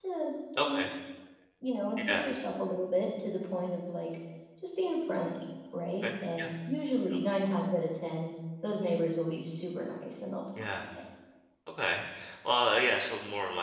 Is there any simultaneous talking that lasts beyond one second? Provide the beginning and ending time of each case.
none

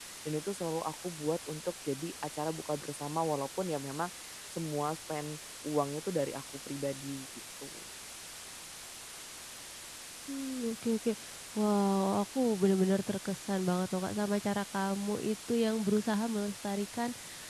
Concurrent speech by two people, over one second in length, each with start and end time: none

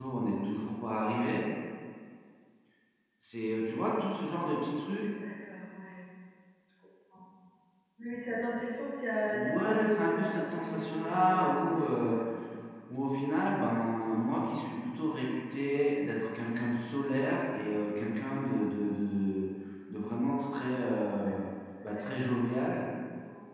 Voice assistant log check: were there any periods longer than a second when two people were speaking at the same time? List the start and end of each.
9.3-12.2

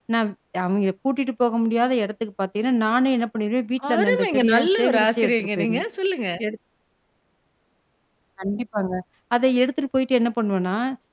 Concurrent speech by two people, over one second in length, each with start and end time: 3.9-5.8

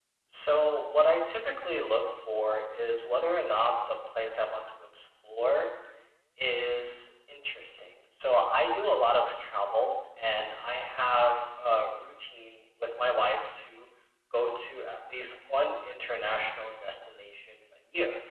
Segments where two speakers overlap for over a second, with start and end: none

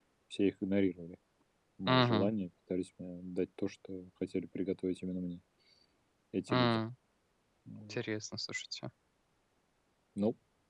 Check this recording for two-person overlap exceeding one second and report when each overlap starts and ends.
none

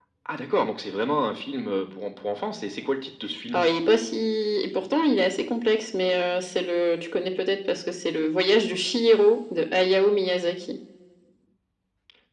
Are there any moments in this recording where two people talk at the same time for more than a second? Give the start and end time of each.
none

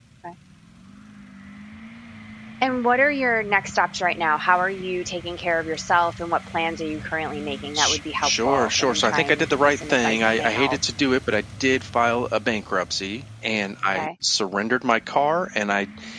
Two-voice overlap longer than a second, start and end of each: 7.7-10.8

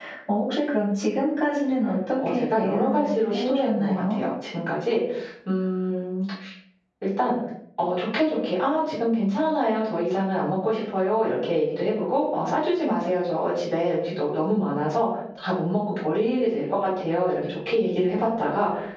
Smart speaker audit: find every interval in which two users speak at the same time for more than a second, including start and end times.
2.3-4.2

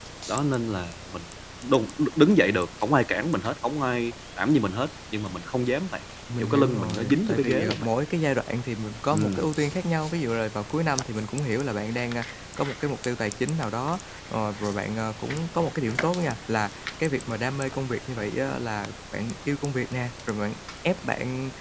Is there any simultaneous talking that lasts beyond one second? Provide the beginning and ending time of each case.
6.4-7.9

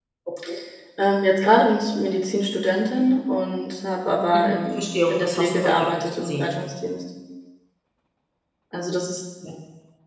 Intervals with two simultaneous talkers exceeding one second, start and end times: 4.3-6.6

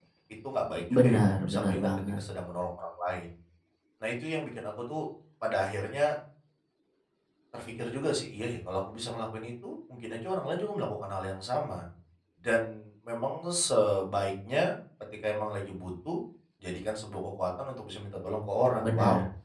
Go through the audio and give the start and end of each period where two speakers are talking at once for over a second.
0.9-2.2

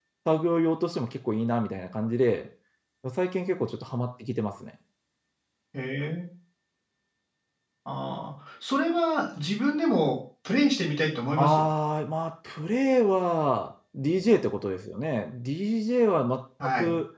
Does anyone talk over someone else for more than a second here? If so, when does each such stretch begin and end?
none

